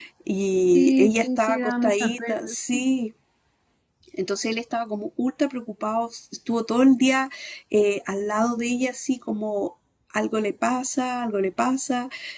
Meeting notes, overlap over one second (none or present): present